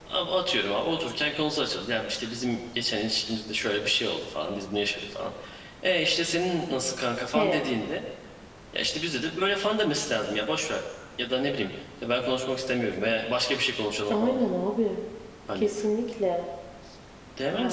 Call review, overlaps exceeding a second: none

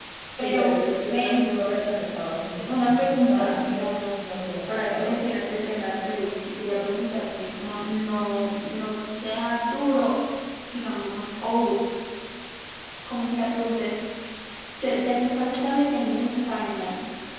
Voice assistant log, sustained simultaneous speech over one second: present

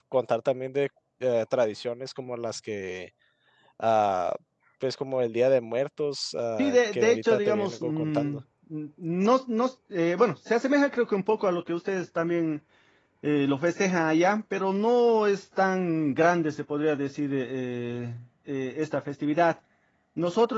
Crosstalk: present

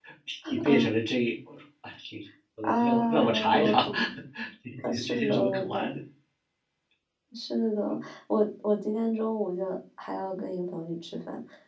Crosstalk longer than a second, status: present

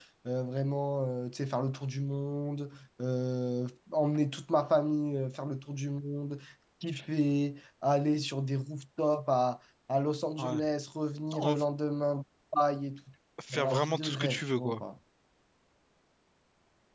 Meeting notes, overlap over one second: present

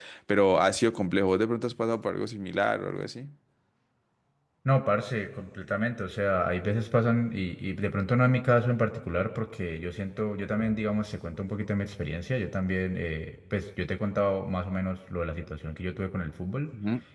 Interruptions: none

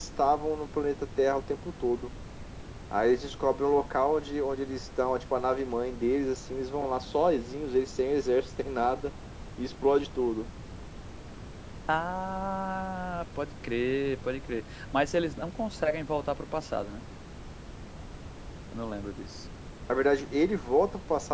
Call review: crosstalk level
none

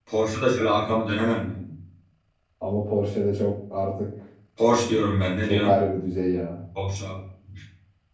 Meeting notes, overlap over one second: none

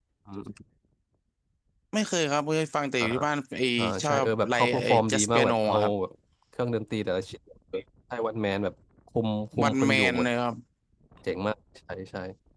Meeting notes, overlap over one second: present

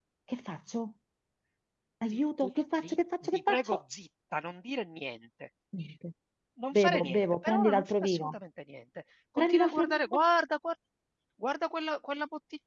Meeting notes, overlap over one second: present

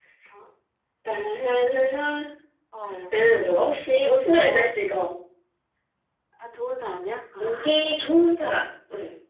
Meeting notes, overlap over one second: none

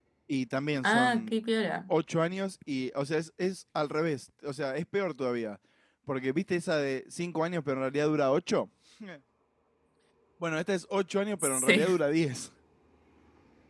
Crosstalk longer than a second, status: none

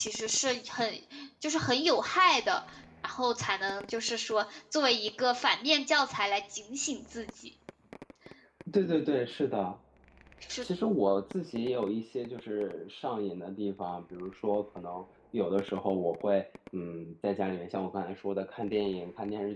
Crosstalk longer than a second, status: none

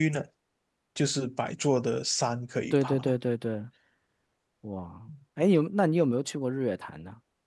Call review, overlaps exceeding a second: none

